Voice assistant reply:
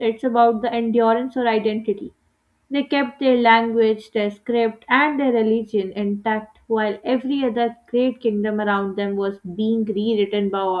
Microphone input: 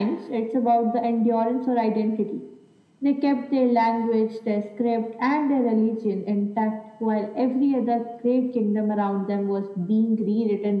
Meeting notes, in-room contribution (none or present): none